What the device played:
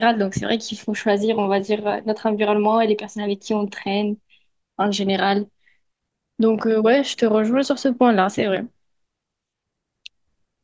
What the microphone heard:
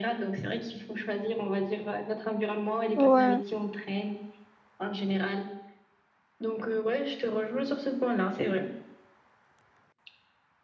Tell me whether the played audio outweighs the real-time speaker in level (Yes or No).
No